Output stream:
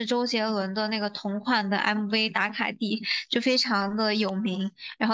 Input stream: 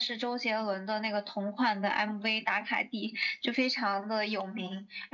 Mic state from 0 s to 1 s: echo only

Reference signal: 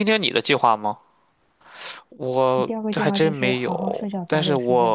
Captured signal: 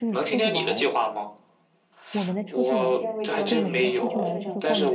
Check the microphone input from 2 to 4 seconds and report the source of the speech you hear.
both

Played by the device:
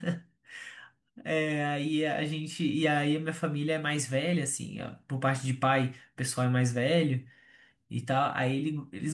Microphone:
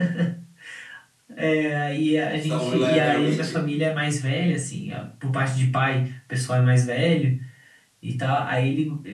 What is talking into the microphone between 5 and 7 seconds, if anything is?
echo only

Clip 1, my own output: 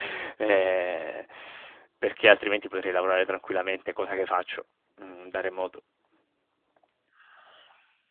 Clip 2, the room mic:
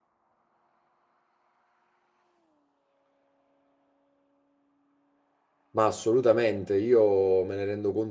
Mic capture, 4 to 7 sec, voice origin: user only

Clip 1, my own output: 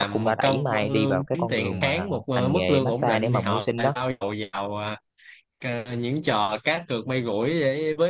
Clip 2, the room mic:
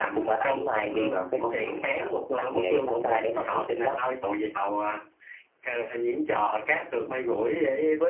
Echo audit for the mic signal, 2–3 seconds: echo only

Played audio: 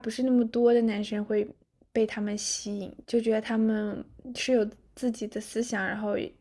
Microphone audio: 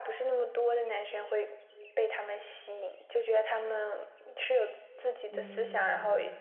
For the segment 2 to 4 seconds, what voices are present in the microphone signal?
echo only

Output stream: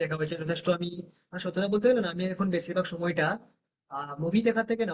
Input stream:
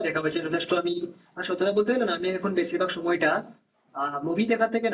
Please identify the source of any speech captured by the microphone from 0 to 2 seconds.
echo only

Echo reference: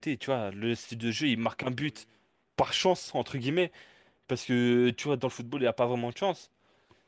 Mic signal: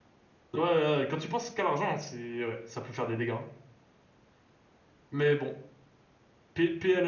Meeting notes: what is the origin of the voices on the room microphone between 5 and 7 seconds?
user only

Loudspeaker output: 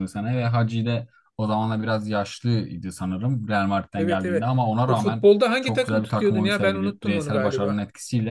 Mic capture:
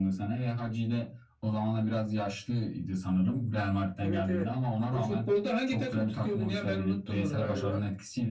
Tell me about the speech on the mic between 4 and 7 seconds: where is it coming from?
echo only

